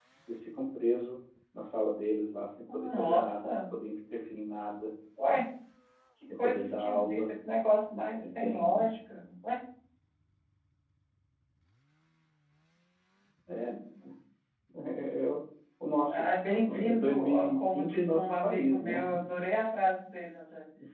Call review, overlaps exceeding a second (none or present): present